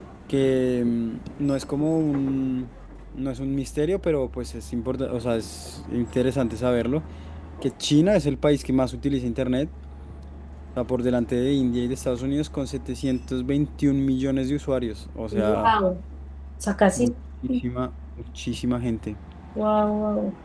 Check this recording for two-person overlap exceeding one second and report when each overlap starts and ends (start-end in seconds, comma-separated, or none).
none